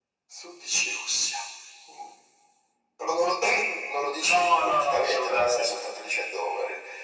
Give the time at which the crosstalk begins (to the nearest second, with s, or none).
4 s